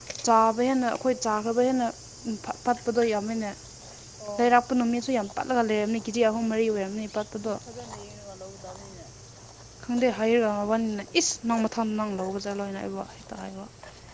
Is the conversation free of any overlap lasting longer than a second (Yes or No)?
Yes